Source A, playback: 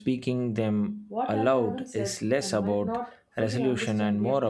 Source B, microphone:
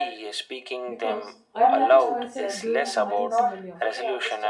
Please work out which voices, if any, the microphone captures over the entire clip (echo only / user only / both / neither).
both